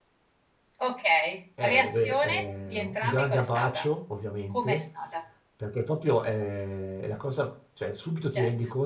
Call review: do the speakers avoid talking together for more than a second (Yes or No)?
No